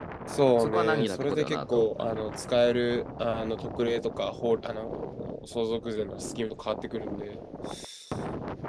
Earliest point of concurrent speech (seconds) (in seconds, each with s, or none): 0.6 s